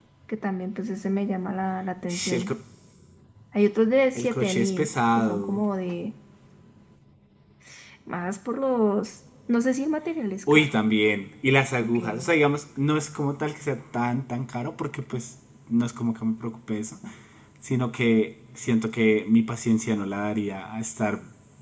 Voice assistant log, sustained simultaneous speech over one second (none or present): present